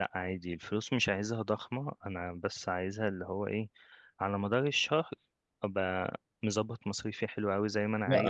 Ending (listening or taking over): taking over